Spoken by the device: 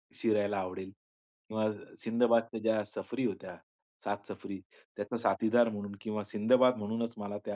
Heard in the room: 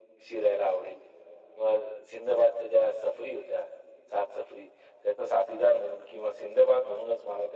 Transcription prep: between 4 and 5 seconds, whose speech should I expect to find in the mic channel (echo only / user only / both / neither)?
echo only